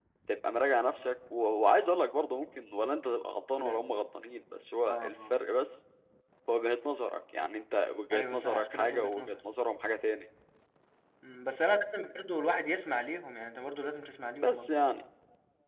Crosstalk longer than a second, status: present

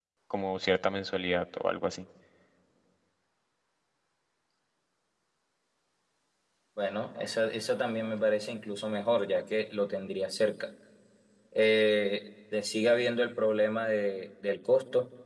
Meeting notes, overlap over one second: none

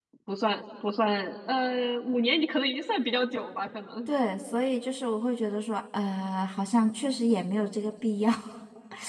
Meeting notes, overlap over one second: none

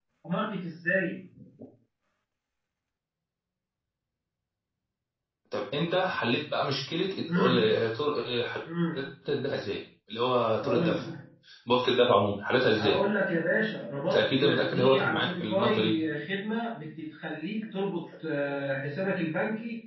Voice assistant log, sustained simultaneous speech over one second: present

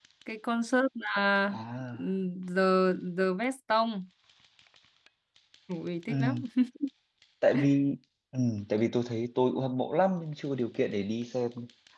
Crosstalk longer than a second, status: none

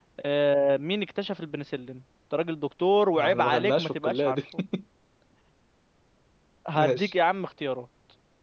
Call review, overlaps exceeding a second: present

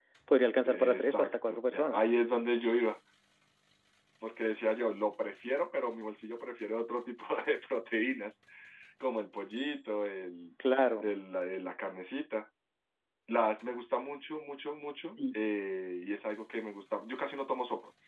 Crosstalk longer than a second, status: present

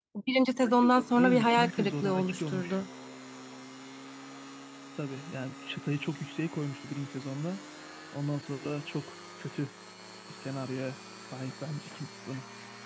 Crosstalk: present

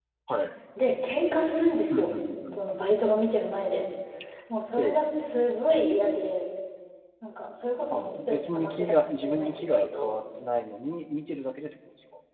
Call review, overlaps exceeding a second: present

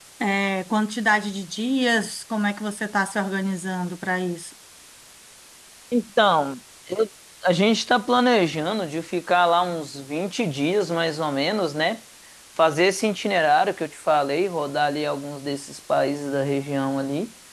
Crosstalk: none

